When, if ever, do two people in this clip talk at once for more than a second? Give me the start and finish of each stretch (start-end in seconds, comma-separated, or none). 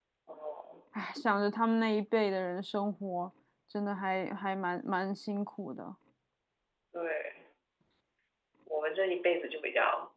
none